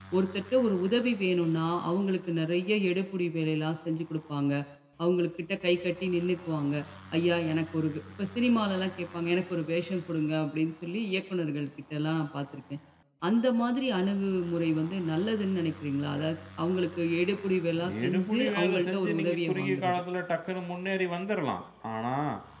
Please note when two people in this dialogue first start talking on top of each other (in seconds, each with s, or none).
18.0 s